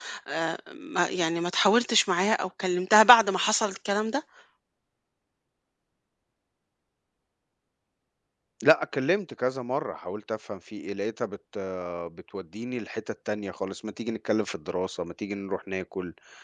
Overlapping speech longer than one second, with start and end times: none

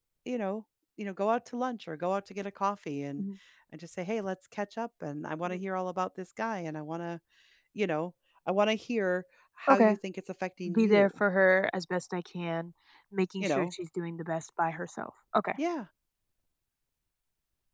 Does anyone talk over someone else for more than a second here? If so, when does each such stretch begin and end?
none

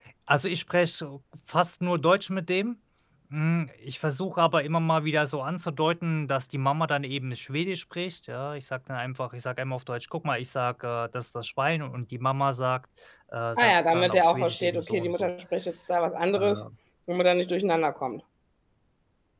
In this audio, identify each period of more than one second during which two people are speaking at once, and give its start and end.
13.6-15.3

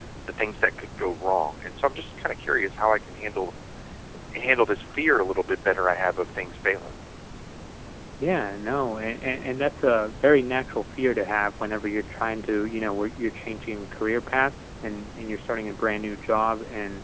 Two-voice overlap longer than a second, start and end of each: none

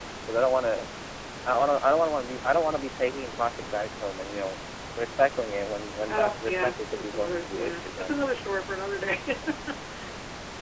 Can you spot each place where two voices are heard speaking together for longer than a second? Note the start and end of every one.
6.1-8.3

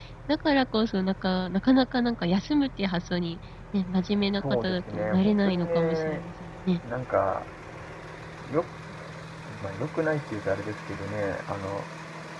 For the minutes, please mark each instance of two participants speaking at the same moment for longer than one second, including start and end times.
4.0-6.2

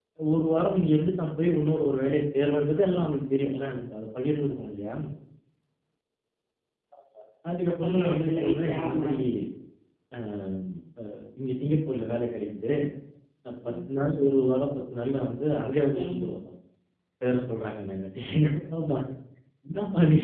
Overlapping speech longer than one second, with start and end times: 7.8-9.1

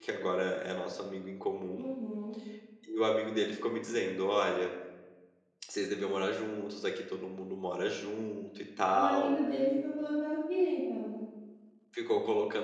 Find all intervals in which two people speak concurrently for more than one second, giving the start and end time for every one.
none

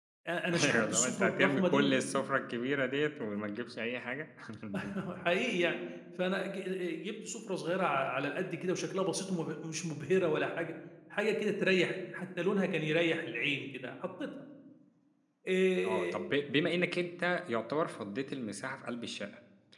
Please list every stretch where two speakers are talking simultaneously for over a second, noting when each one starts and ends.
0.6-1.9

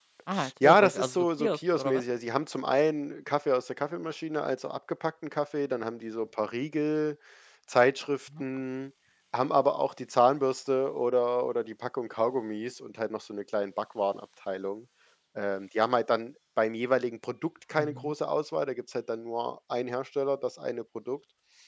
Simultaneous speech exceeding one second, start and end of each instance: 0.6-2.0

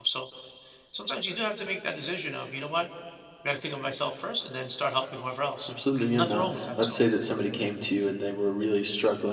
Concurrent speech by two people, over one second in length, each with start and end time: 5.7-7.0

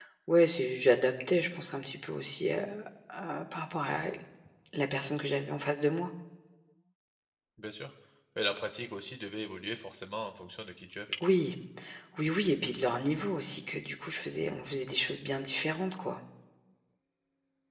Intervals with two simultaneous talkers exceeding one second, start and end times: none

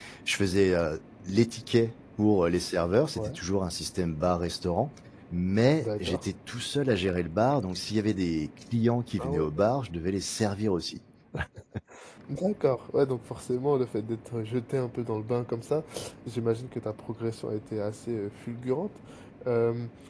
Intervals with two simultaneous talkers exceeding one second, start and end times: none

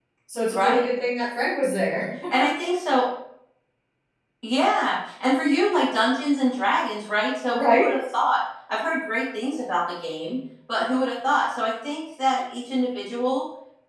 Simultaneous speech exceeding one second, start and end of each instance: none

